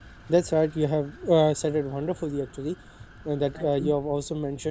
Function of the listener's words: listening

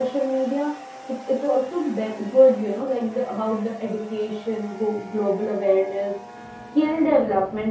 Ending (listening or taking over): listening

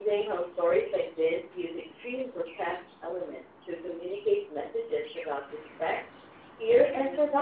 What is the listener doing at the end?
taking over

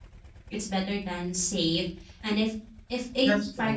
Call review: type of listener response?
listening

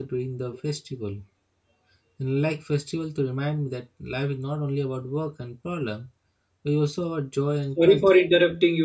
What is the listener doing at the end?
taking over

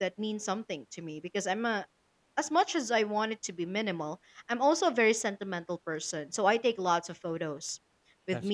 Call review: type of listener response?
listening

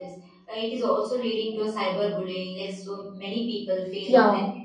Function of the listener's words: listening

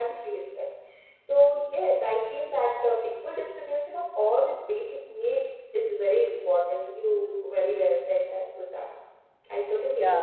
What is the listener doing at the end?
taking over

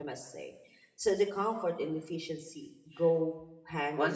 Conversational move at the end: taking over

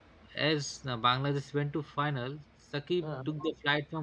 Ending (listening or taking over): listening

